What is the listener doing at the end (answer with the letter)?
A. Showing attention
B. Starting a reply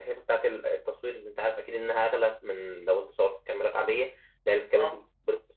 A